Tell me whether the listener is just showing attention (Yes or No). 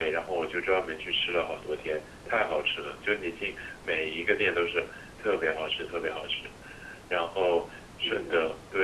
Yes